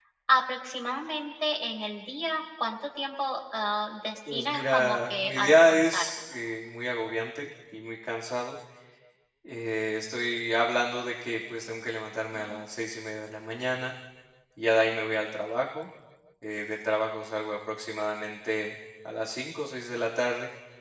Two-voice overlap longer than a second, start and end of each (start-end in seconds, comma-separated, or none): 4.3-6.1